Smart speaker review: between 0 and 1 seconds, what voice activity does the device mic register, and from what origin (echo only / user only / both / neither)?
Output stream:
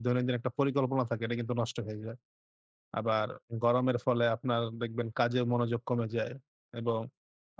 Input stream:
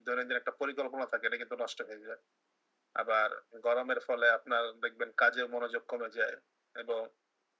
echo only